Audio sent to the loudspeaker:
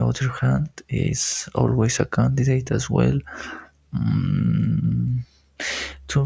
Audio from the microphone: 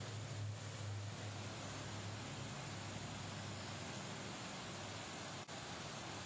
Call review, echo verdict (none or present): none